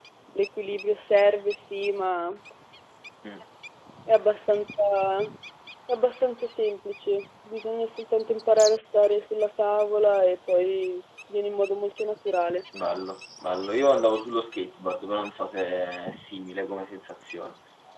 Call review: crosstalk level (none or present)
none